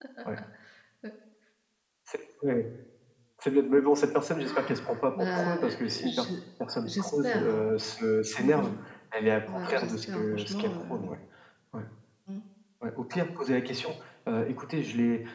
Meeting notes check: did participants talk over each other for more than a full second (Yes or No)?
Yes